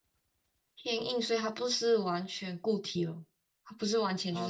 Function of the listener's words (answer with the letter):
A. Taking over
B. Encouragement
A